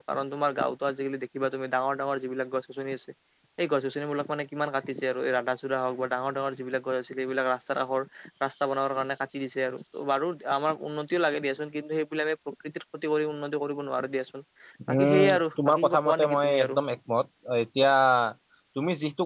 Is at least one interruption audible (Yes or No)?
Yes